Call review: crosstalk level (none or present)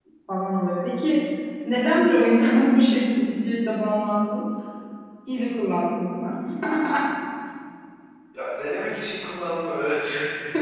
none